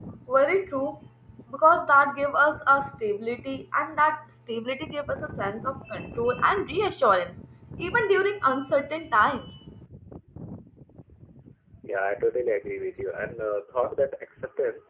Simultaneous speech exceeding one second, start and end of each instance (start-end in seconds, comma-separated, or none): none